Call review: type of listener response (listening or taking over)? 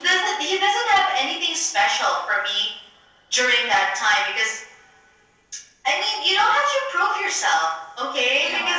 listening